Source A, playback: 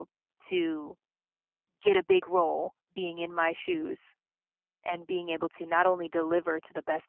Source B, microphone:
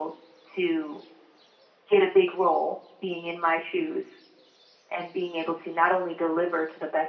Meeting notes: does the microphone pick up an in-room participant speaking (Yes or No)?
No